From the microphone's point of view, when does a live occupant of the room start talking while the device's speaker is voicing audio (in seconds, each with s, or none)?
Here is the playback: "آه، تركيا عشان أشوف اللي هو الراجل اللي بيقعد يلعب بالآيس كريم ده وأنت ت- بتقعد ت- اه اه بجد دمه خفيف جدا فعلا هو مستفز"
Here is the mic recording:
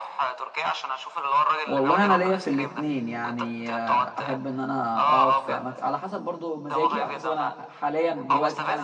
1.7 s